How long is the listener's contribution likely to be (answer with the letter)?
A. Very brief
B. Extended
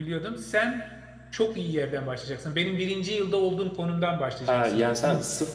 B